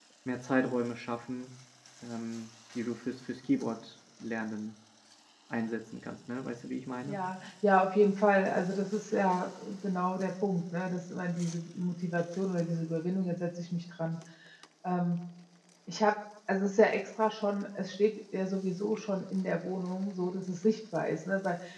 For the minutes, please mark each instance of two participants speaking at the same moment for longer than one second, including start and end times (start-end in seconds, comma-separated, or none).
none